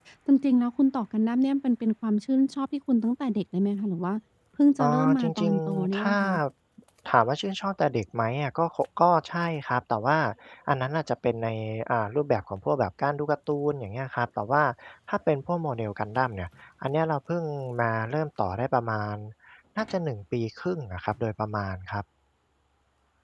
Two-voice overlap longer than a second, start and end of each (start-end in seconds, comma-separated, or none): 4.9-6.2